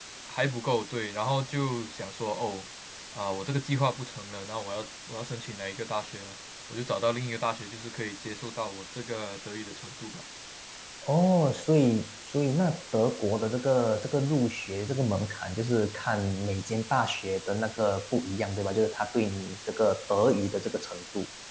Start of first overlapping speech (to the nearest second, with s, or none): none